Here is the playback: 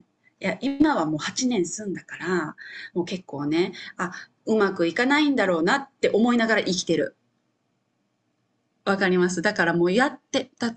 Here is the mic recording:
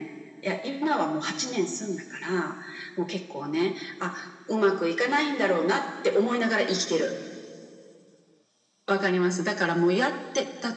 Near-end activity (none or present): none